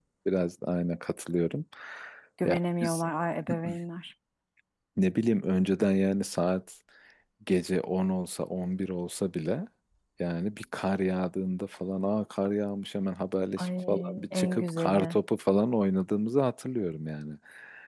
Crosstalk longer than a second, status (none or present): present